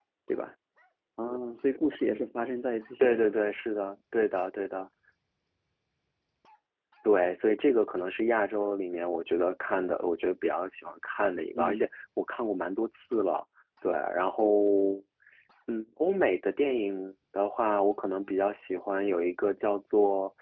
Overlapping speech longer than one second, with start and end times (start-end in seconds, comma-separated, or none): none